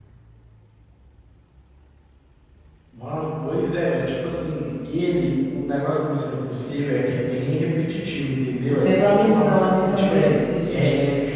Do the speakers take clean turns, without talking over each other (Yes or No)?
No